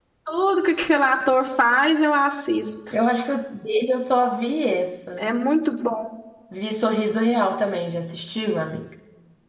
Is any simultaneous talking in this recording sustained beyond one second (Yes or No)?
No